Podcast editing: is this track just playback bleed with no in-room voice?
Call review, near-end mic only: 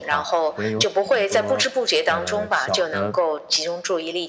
No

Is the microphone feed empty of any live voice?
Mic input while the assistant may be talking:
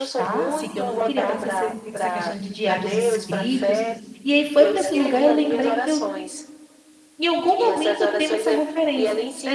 No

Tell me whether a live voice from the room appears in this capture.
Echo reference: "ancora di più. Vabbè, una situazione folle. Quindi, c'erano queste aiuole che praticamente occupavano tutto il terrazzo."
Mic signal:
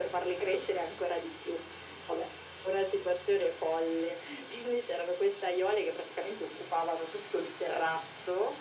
No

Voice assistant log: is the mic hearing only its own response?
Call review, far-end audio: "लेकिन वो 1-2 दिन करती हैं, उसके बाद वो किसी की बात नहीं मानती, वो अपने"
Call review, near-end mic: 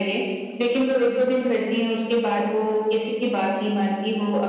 Yes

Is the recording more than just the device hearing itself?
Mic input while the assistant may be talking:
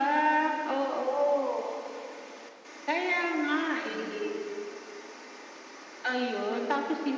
No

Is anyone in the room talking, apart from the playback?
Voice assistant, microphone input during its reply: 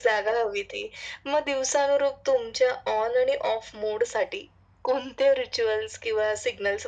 No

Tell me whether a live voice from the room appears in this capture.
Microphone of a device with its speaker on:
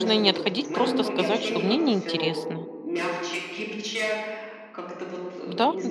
Yes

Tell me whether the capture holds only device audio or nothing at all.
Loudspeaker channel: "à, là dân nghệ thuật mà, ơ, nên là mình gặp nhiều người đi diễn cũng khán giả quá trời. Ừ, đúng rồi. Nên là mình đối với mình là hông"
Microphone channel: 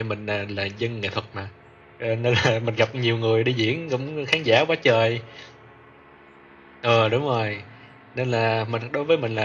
Yes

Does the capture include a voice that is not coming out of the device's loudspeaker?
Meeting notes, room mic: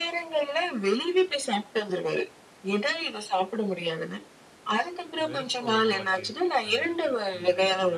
Yes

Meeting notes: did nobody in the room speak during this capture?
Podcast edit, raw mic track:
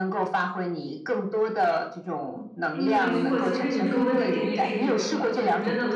No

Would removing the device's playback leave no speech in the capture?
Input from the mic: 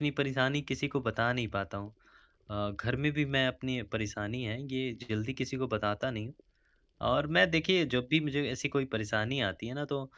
No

